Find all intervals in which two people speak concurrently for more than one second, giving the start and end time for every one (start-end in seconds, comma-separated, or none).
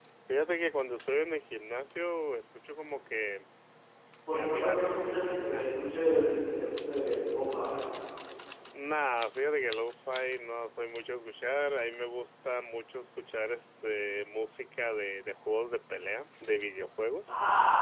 4.3-5.7